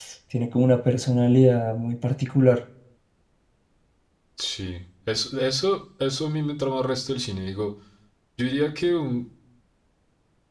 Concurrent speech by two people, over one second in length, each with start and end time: none

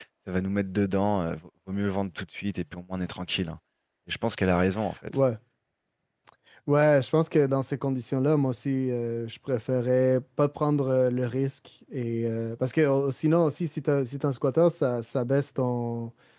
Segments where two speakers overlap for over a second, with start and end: none

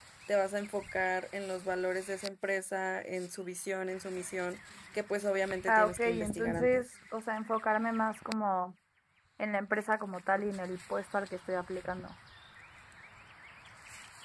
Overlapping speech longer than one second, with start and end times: 5.7-6.9

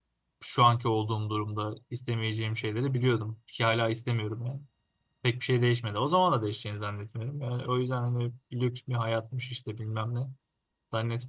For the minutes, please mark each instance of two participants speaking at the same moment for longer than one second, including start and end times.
none

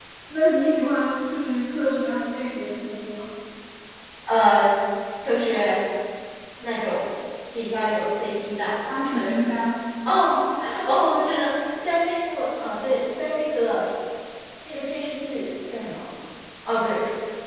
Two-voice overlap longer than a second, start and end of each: none

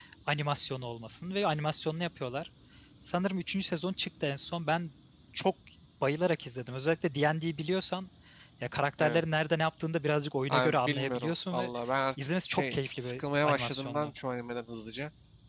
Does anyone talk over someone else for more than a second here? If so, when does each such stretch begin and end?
10.5-11.7, 12.2-14.1

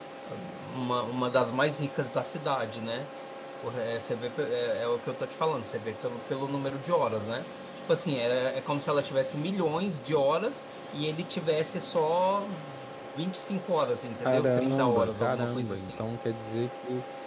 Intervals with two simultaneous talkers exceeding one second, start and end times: 14.2-15.9

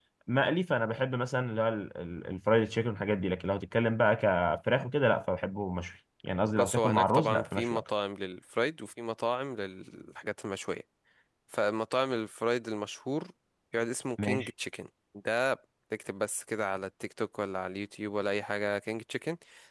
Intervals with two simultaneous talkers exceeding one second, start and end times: 6.6-7.8

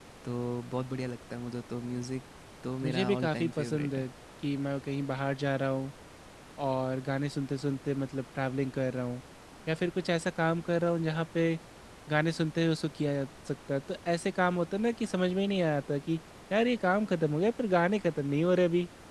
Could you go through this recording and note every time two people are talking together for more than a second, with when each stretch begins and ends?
2.8-4.0

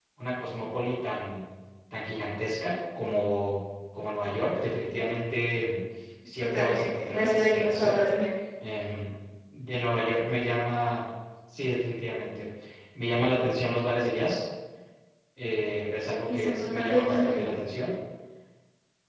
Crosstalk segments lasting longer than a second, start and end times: 6.4-8.0, 16.3-17.5

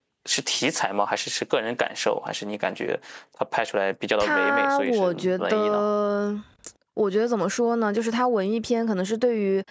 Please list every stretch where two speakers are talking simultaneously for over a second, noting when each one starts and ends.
4.2-5.8

